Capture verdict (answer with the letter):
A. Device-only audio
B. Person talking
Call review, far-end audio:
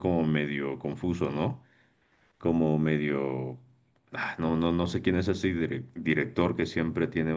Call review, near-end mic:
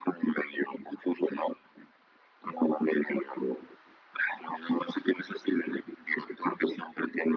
A